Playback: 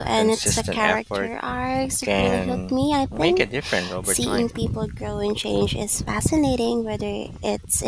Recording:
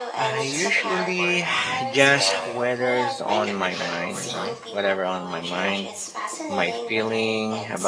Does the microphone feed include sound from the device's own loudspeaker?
Yes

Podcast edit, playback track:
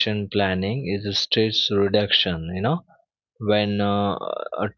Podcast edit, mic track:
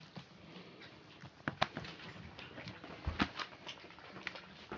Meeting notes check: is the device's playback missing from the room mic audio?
Yes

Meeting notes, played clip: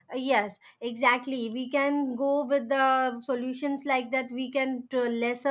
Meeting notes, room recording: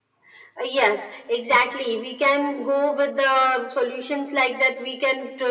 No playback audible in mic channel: No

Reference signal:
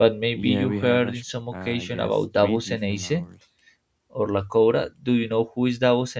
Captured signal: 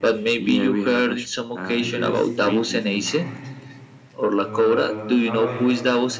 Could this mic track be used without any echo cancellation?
No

